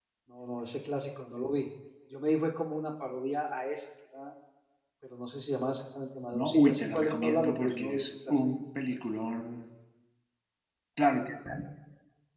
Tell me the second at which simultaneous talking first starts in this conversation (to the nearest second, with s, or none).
6 s